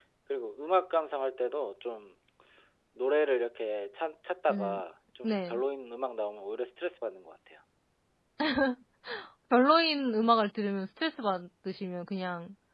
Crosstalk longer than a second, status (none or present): none